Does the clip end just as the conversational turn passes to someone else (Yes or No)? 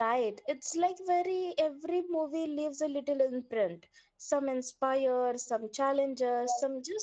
No